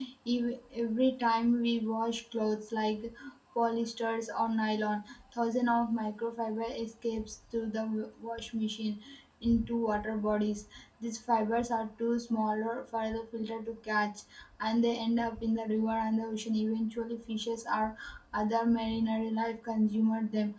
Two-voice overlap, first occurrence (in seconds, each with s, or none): none